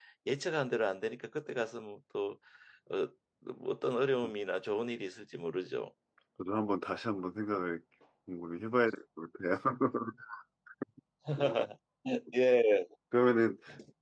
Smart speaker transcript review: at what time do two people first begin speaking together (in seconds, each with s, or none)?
none